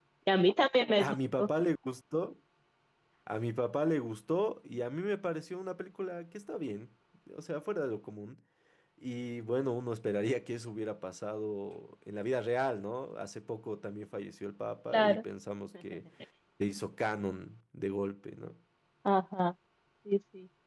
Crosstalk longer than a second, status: none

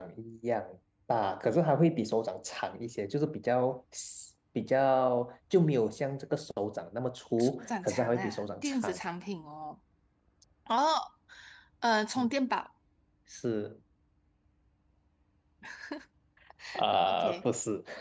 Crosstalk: present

